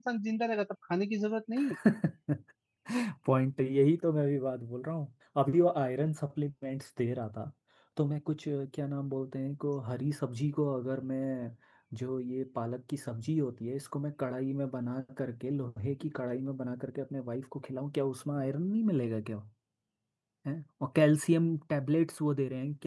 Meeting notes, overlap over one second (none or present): none